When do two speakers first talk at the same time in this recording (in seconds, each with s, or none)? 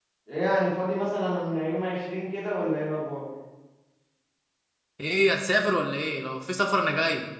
none